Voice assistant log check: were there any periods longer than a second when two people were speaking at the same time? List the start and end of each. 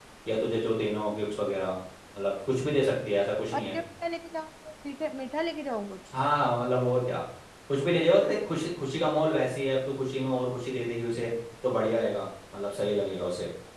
none

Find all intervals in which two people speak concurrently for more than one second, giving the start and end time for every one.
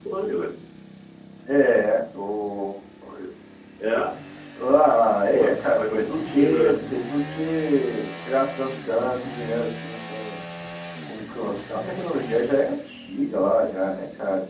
5.3-6.8

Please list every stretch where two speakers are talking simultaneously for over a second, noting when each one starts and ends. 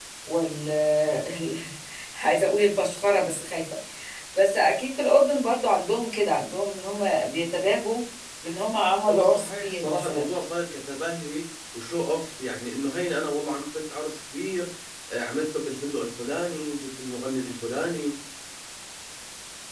9.1-10.3

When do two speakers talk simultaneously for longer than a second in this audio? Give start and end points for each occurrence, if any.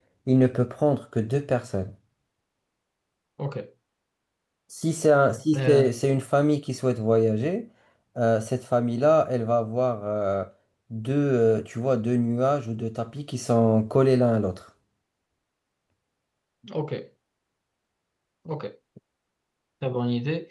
none

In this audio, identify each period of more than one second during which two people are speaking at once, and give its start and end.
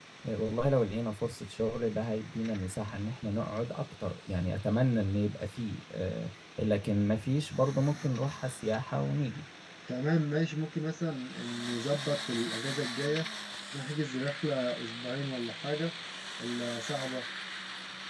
none

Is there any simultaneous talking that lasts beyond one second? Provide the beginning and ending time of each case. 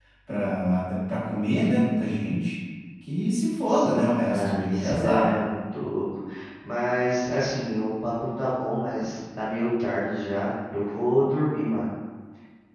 3.7-5.4

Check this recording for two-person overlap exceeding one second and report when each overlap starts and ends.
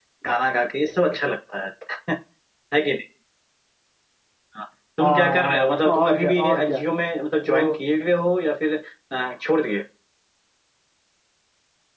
5.0-6.8

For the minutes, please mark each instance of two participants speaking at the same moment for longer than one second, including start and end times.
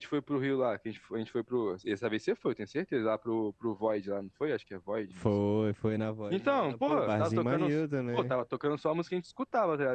6.3-7.6

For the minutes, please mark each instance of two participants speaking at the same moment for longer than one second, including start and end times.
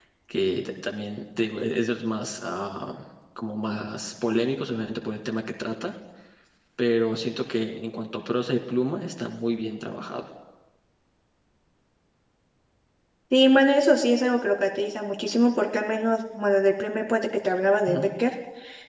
none

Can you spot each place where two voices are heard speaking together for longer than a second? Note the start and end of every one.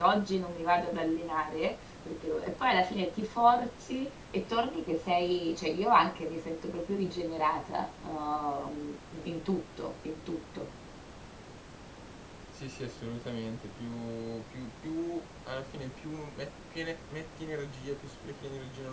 none

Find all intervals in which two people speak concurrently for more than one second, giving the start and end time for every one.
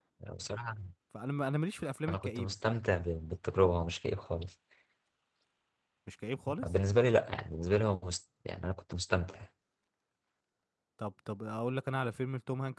none

